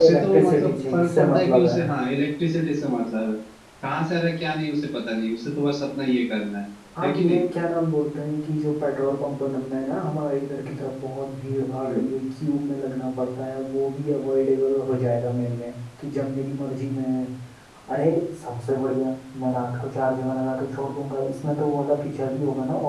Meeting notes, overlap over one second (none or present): present